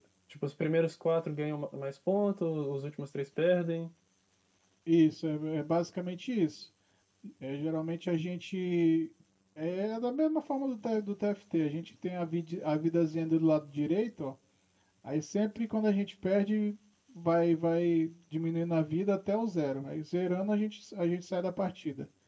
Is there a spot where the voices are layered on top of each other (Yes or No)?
No